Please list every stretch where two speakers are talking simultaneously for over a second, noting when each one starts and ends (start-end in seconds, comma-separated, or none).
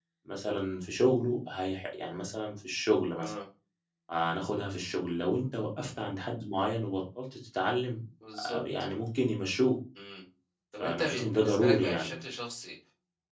10.8-12.2